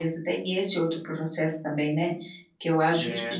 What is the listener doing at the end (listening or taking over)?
listening